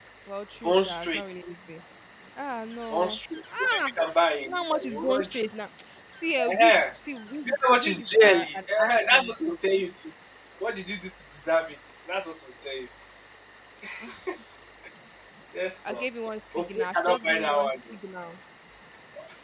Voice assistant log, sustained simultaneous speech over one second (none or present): present